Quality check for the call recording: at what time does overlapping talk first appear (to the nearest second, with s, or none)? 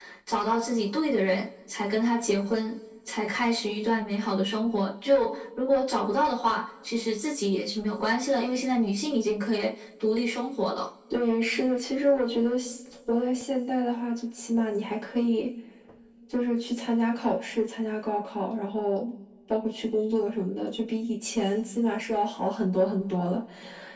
none